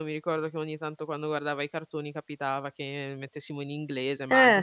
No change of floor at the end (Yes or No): Yes